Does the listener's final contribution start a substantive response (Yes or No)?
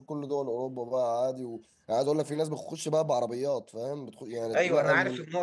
Yes